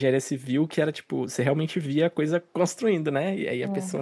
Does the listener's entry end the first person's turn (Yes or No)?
No